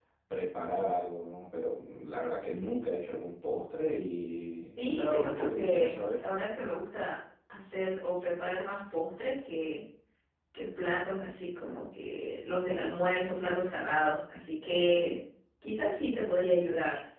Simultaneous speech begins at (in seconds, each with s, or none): 4.8 s